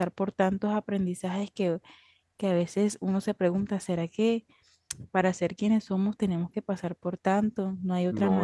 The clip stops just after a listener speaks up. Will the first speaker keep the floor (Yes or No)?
No